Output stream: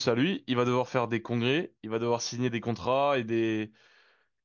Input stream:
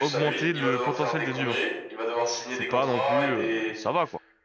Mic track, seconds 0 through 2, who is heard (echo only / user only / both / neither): both